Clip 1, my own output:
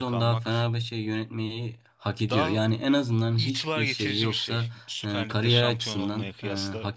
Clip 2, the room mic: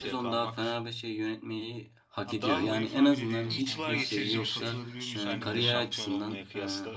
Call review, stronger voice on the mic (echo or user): echo